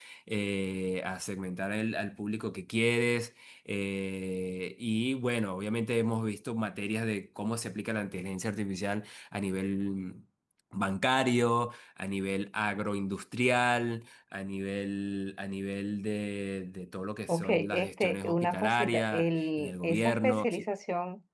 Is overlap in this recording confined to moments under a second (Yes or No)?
No